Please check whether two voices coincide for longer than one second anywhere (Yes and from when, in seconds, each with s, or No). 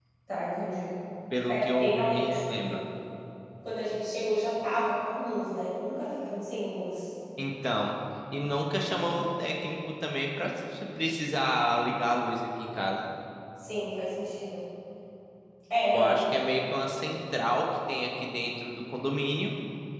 Yes, from 1.5 s